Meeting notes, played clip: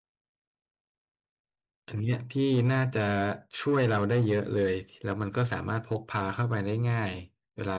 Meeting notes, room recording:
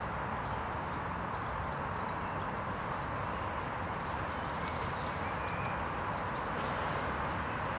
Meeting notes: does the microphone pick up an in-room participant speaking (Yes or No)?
No